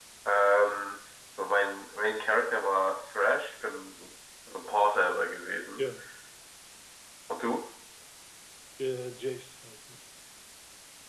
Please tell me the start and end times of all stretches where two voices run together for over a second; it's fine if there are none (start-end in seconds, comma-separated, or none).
none